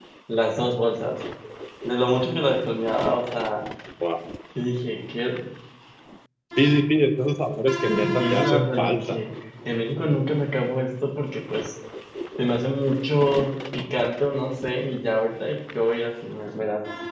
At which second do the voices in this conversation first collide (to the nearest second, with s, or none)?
8 s